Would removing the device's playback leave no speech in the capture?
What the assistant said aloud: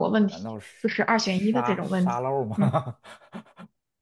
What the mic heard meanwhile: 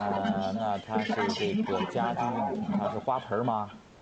No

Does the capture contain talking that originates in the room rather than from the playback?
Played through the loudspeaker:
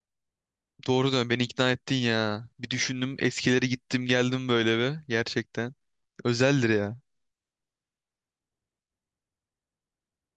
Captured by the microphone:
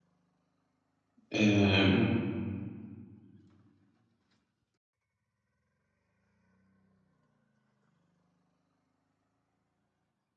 Yes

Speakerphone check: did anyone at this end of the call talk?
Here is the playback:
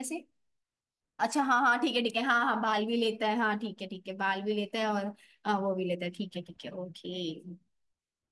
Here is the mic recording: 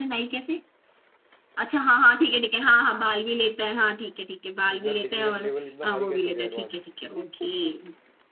Yes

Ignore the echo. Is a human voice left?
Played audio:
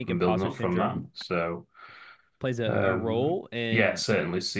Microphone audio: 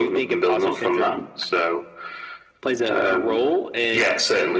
No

